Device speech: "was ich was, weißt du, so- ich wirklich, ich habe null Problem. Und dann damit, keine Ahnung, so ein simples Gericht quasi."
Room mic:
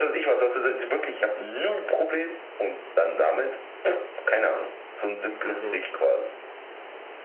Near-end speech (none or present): present